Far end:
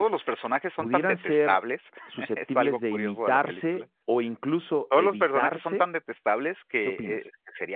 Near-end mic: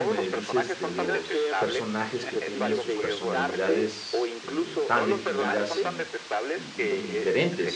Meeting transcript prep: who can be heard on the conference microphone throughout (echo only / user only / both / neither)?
both